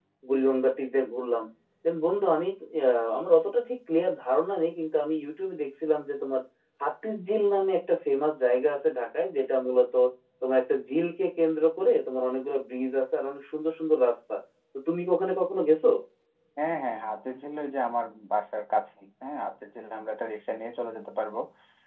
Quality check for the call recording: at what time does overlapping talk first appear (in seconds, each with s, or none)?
none